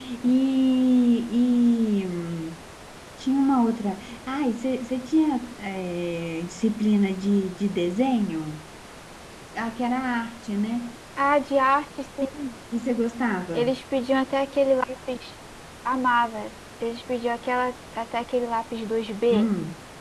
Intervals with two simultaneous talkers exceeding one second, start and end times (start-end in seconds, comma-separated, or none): none